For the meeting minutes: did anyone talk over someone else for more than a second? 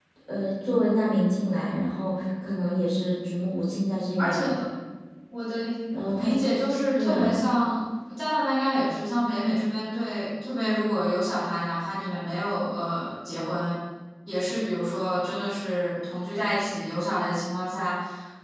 No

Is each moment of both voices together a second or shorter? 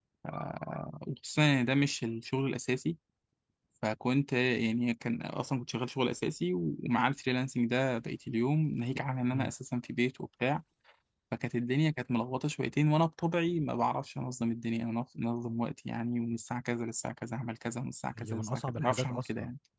No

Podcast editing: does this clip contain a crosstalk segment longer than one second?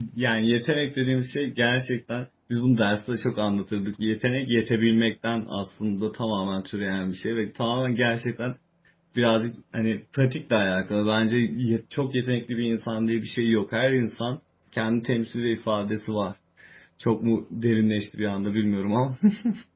No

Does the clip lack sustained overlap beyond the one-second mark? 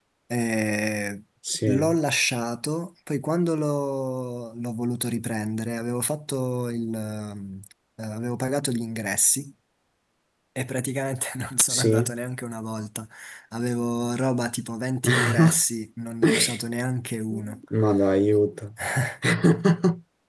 Yes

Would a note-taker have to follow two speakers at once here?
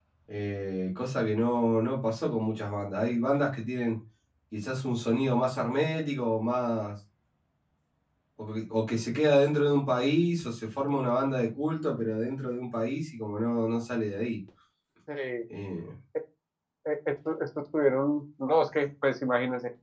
No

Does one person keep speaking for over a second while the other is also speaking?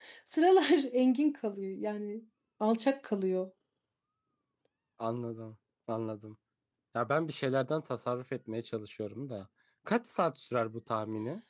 No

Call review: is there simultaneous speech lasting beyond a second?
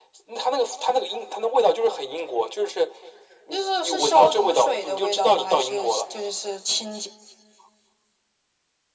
Yes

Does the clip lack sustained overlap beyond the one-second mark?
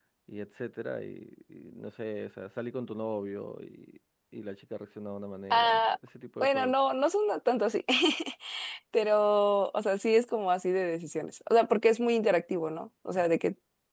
Yes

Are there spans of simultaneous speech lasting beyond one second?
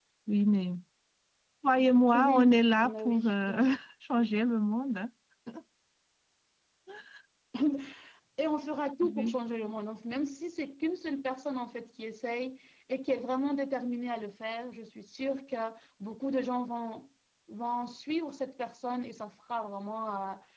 Yes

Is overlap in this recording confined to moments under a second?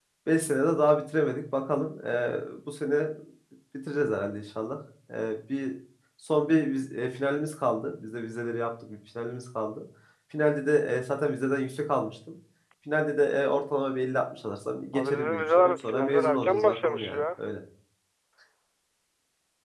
No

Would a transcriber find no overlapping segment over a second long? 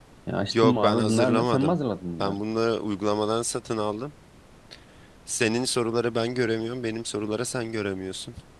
No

